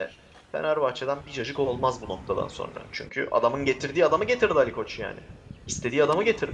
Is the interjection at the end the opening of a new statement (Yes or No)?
Yes